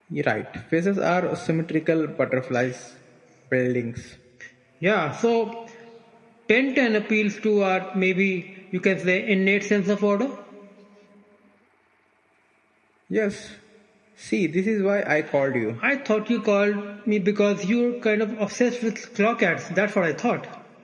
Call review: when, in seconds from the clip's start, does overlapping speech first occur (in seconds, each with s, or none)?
none